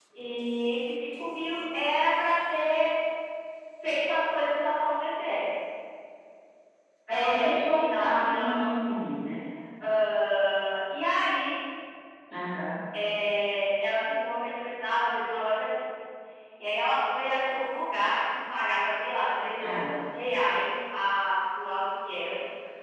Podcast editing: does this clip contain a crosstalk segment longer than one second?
Yes, from 7.1 s

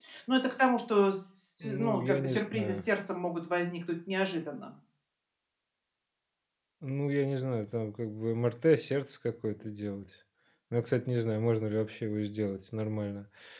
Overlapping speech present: Yes, from 1.6 s

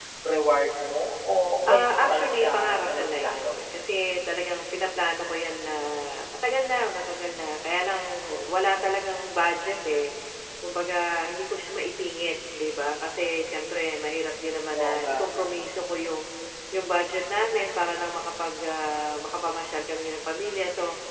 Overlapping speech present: Yes, from 1.6 s

